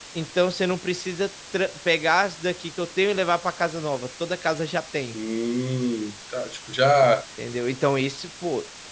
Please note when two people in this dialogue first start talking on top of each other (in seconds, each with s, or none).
none